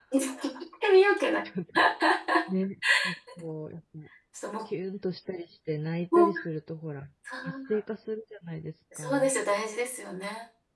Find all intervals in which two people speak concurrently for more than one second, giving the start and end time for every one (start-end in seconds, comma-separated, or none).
none